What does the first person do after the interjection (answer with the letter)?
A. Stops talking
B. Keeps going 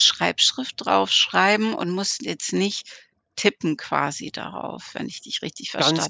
A